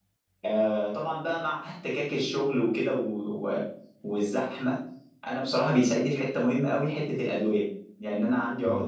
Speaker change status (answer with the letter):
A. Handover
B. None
B